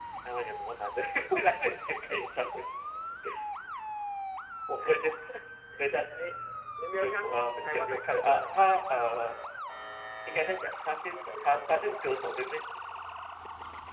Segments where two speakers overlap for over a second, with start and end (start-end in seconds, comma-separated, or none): 7.0-8.6